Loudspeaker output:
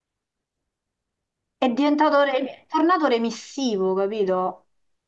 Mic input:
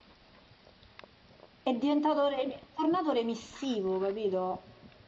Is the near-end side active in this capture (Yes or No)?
No